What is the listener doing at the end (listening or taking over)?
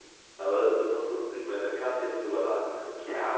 taking over